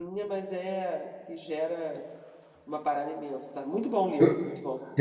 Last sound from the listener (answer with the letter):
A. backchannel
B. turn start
B